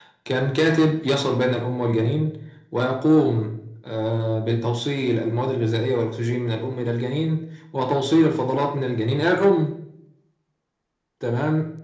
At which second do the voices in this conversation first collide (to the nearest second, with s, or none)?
none